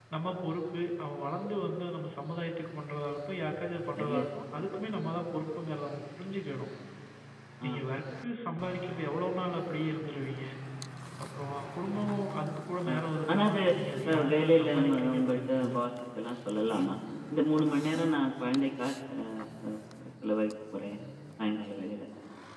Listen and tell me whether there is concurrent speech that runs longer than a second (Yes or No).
Yes